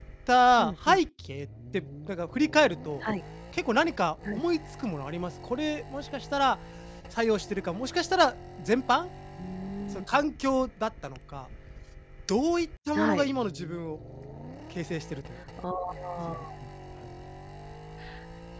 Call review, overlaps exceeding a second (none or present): none